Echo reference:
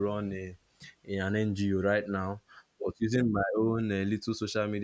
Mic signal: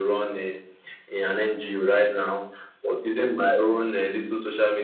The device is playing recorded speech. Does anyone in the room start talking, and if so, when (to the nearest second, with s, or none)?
none